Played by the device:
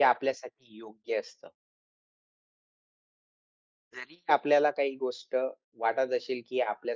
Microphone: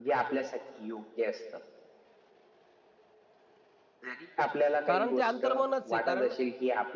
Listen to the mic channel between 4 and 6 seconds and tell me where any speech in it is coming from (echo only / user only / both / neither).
both